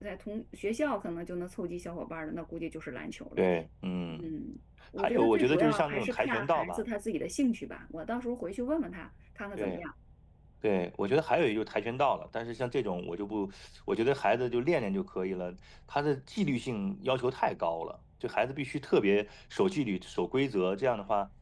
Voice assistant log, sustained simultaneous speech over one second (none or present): present